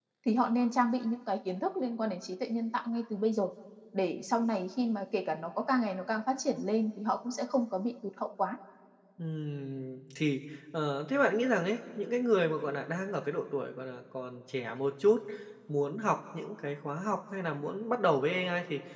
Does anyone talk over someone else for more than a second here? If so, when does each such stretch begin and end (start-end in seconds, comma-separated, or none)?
none